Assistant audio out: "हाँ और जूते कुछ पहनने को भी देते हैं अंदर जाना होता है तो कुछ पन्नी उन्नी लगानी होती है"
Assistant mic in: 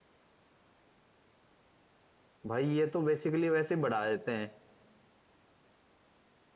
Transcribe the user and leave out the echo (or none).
भाई ये तो बेसिकली वैसे ही बढ़ा देते हैं